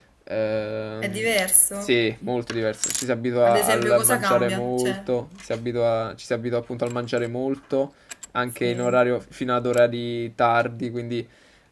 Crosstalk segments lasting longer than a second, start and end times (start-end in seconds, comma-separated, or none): 3.4-5.0